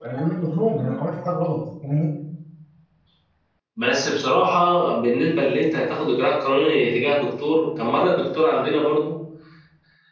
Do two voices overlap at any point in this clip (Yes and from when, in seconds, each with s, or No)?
No